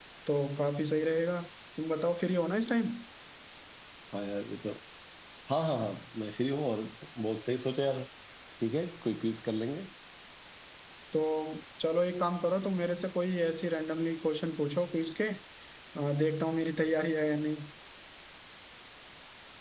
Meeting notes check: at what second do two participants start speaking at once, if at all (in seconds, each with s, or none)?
none